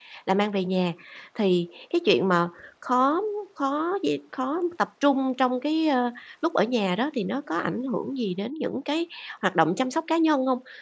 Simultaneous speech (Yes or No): No